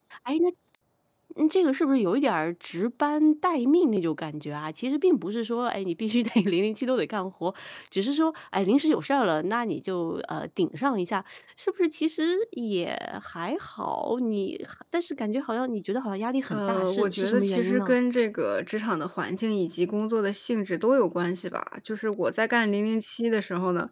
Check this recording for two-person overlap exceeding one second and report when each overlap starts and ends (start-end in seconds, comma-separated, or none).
16.5-17.9